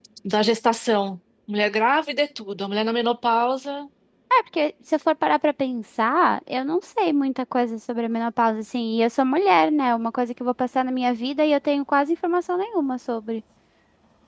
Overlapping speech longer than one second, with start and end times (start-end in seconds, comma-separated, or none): none